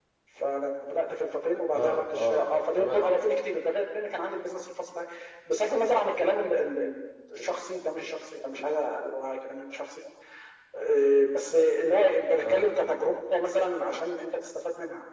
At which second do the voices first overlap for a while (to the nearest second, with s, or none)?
2 s